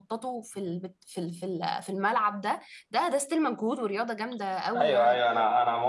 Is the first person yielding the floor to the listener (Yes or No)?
Yes